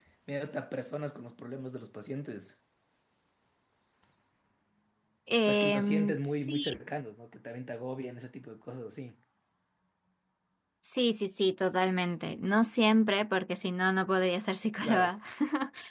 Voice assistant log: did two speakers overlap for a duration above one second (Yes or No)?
Yes